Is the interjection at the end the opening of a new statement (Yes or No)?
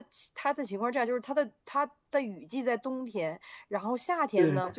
No